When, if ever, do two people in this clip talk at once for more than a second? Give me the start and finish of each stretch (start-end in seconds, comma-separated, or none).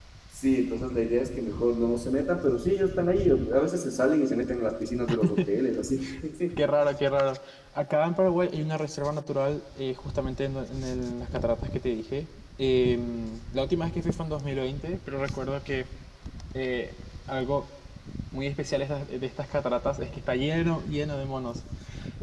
none